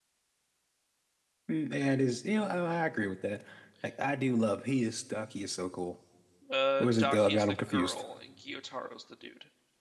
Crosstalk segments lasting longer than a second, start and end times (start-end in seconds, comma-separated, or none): 6.8-8.0